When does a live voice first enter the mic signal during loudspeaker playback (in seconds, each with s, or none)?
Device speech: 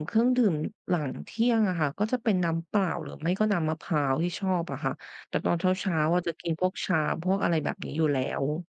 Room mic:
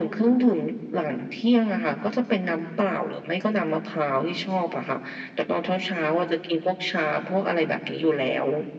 none